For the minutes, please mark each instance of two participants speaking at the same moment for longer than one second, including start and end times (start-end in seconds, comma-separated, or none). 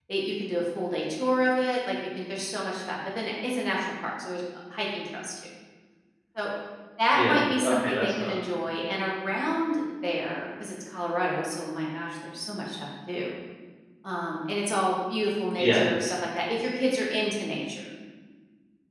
7.1-8.4